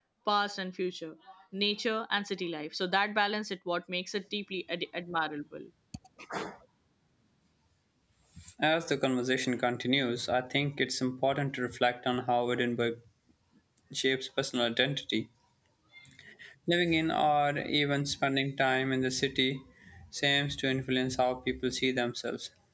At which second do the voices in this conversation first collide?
none

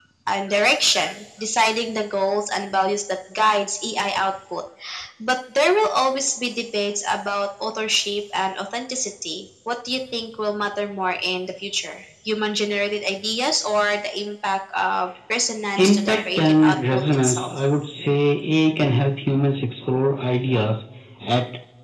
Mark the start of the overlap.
15.8 s

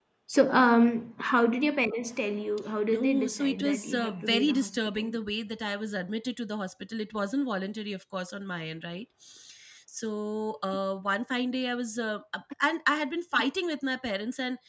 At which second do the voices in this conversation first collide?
2.9 s

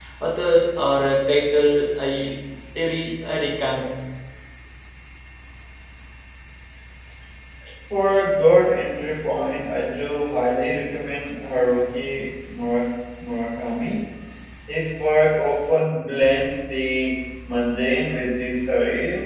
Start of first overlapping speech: none

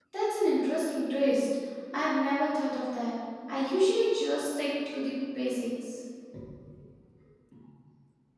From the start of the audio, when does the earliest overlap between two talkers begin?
none

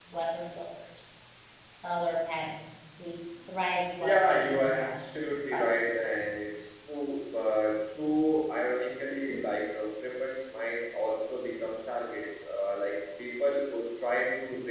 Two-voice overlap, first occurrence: 4.0 s

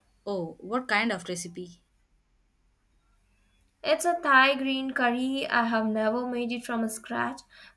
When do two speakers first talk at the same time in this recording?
none

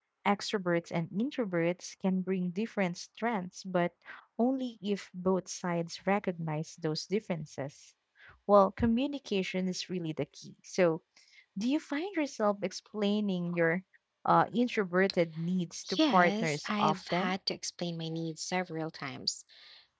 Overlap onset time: 15.8 s

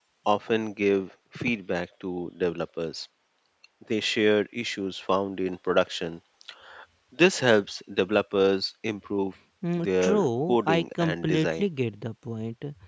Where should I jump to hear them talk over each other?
9.6 s

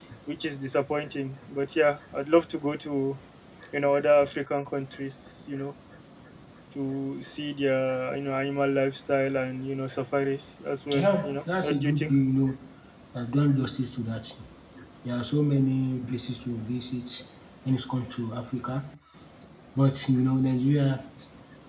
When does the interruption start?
10.9 s

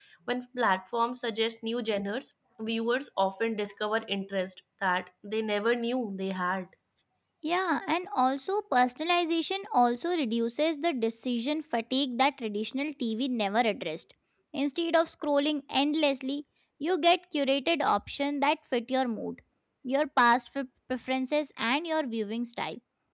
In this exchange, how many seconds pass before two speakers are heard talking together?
none

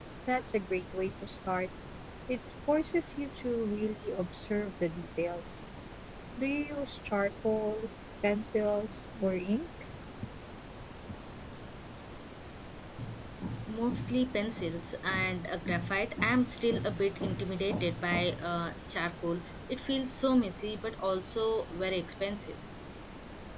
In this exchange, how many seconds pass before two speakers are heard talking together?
none

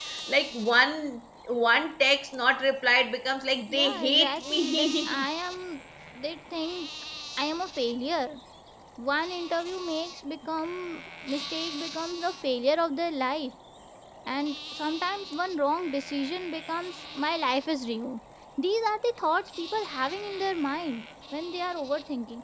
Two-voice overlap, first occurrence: 3.7 s

